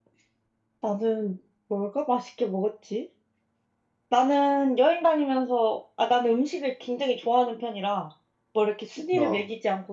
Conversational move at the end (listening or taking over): listening